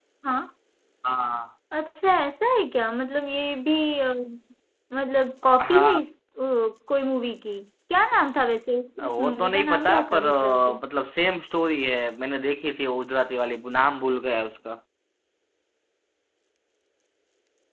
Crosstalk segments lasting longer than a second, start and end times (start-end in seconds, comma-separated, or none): 9.1-10.8